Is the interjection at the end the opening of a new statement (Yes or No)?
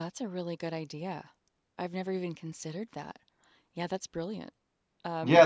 Yes